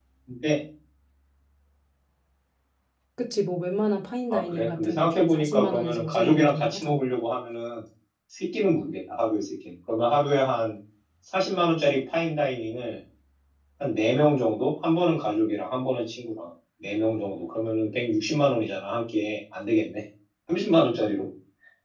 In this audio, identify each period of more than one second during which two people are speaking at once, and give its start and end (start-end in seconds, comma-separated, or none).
4.3-7.0